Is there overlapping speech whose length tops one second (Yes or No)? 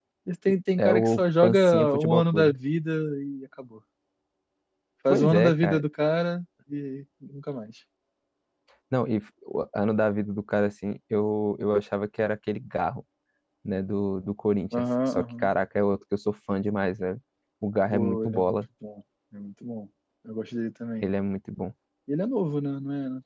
Yes